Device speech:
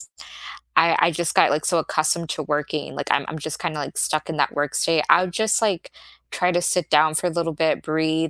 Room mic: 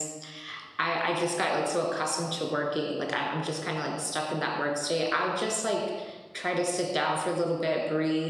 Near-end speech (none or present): none